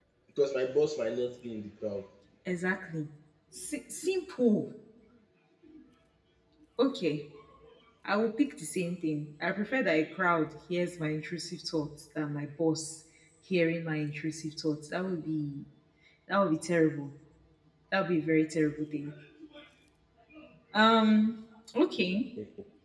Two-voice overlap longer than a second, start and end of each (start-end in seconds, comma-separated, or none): none